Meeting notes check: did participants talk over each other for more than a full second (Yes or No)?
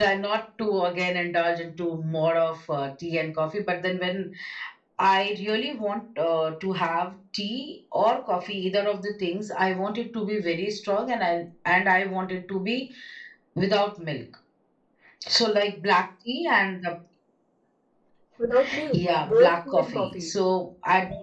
Yes